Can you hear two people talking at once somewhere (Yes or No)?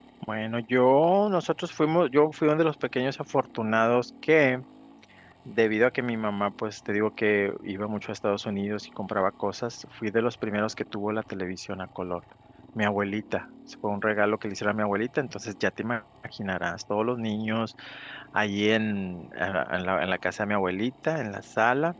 No